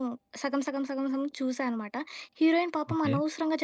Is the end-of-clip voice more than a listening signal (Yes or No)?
No